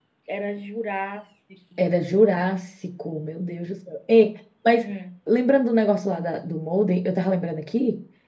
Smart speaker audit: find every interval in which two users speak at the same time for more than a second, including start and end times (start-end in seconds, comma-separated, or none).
none